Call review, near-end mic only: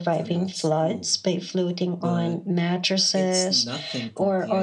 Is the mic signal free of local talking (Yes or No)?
No